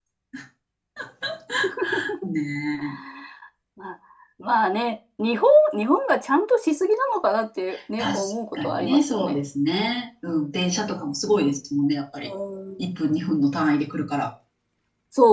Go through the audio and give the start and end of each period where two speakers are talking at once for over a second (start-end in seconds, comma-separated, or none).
8.0-9.4